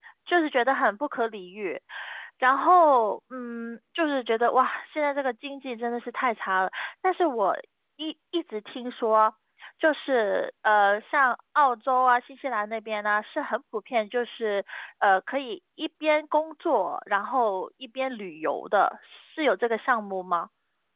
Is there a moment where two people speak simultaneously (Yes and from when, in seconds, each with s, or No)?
No